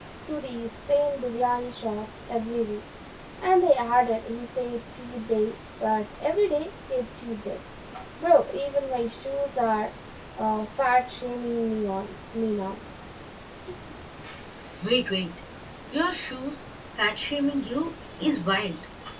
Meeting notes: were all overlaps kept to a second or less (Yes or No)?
Yes